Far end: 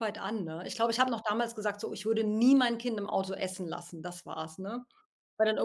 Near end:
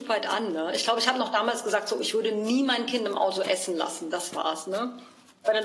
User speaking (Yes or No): No